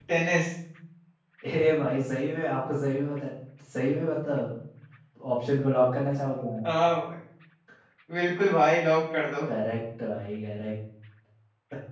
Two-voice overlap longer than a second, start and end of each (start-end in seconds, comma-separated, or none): none